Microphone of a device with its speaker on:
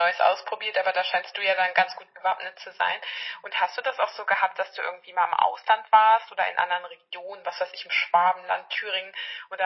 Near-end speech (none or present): none